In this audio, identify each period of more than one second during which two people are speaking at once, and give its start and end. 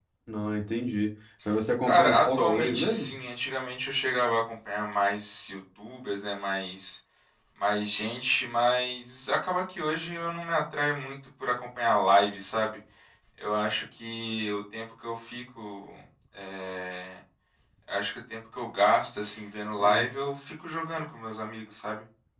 1.8-3.1

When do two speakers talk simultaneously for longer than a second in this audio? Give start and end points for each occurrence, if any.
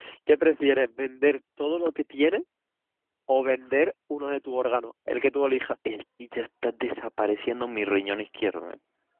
none

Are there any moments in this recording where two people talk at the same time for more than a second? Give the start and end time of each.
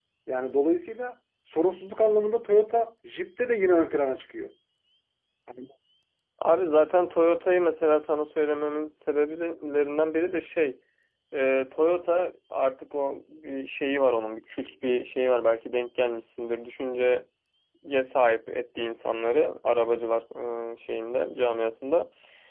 none

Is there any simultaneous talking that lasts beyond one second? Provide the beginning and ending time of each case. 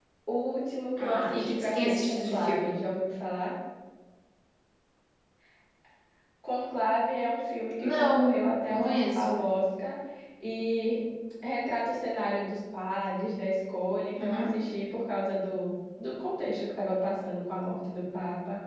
1.0-2.8, 7.8-9.3

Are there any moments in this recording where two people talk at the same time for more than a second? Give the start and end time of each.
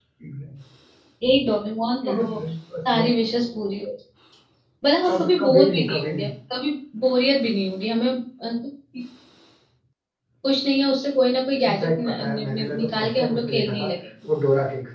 5.1-6.3, 11.6-13.9

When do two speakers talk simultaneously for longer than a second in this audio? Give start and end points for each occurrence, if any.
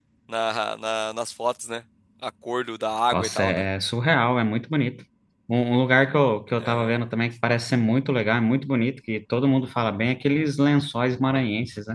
none

